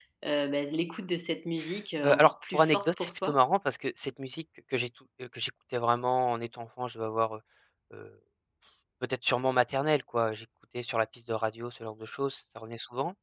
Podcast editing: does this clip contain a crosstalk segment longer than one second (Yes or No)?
Yes